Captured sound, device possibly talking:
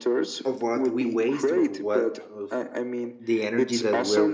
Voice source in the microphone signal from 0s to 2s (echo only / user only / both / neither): both